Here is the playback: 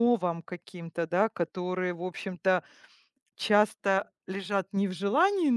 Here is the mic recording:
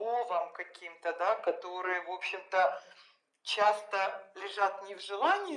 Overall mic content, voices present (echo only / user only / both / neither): echo only